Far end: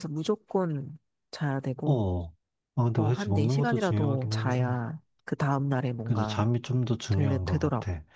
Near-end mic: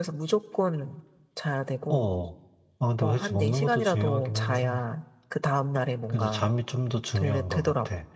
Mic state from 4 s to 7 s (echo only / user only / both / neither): echo only